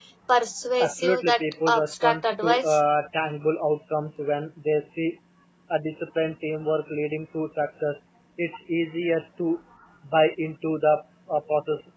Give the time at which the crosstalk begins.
0.8 s

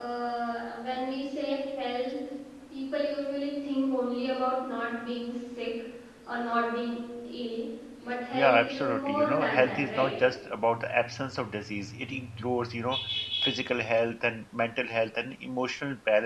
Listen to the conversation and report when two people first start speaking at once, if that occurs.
8.3 s

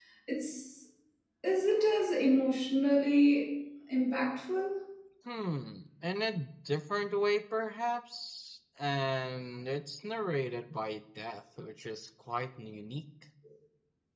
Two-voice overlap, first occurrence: none

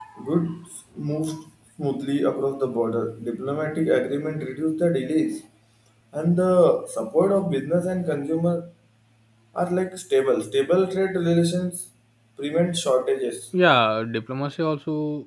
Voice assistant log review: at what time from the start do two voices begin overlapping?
none

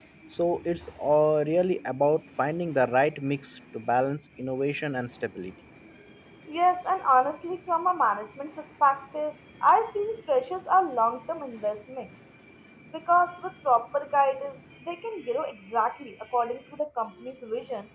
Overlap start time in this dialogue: none

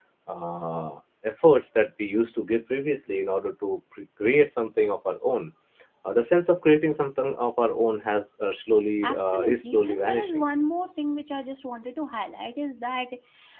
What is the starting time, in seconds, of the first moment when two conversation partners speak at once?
9.0 s

